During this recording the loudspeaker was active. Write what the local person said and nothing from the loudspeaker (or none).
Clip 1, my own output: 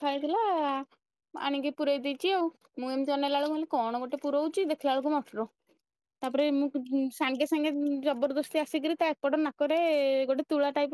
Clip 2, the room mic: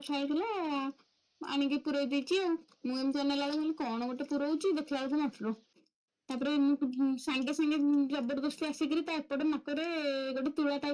none